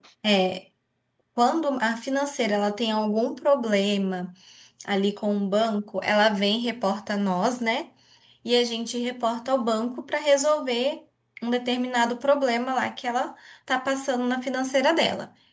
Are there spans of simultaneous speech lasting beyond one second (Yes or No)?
No